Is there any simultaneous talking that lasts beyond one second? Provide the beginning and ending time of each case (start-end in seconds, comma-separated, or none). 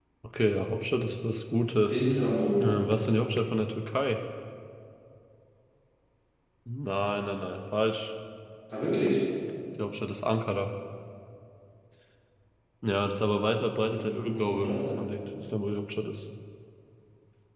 13.8-15.1